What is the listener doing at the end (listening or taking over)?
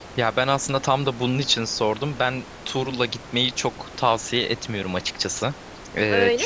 listening